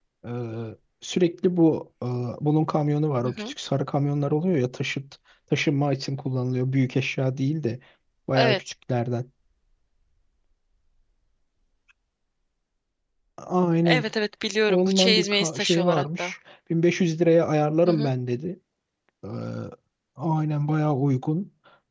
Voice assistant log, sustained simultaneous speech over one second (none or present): present